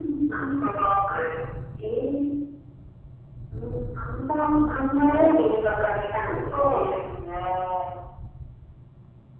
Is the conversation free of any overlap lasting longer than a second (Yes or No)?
Yes